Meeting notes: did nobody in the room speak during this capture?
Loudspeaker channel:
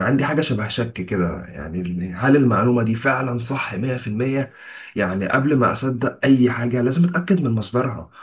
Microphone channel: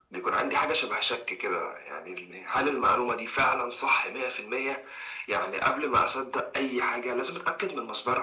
Yes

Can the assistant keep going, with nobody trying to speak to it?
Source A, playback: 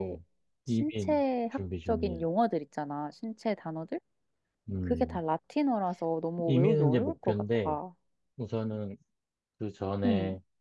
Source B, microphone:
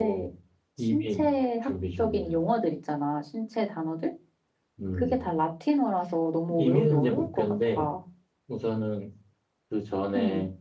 Yes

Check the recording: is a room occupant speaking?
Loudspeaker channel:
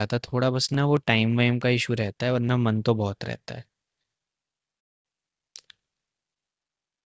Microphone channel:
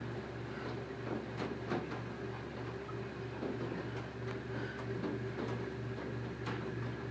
No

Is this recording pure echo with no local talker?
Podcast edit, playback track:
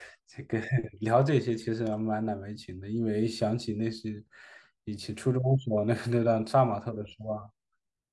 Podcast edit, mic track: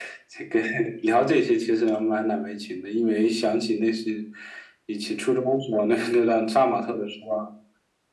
Yes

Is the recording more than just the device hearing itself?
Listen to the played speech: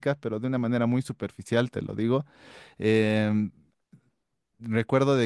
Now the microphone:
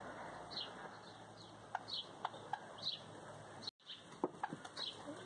No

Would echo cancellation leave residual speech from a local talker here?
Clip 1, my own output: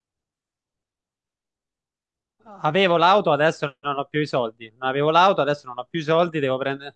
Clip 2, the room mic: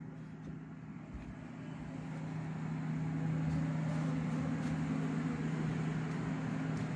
No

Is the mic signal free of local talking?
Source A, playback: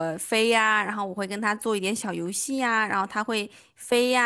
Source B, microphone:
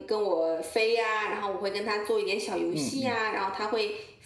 No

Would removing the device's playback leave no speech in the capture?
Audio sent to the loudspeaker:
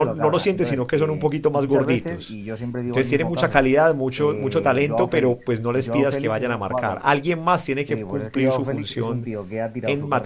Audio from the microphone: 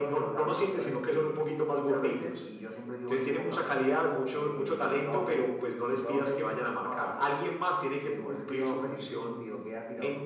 No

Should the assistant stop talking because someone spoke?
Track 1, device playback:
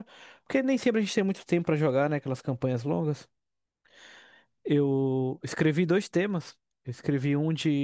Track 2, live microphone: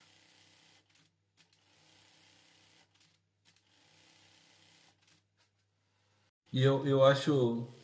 Yes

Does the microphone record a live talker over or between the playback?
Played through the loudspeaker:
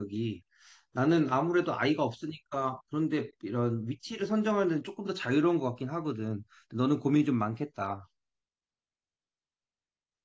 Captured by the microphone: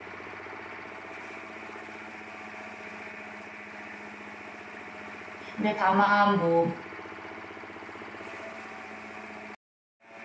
Yes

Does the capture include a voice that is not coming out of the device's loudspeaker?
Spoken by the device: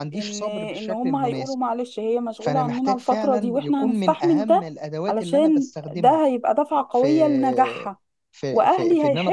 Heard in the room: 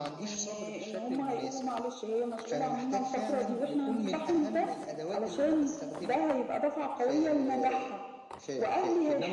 No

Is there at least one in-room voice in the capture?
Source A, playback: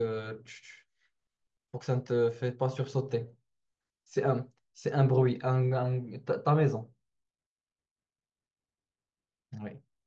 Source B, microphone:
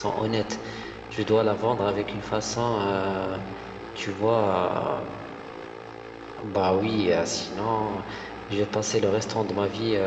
Yes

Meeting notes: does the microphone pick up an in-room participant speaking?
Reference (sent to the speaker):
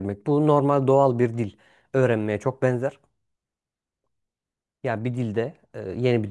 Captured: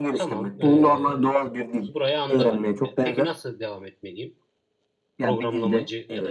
Yes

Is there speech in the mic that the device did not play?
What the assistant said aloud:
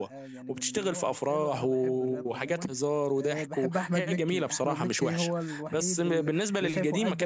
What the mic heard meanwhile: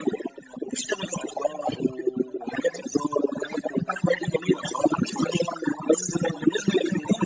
No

